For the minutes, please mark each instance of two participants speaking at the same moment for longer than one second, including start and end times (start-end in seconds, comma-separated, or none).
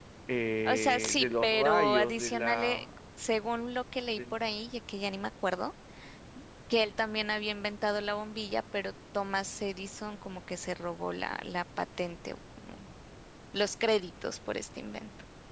0.6-2.8